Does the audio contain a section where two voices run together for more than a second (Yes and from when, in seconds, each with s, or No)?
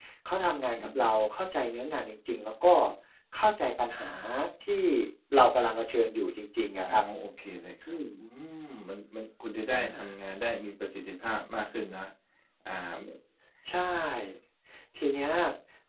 No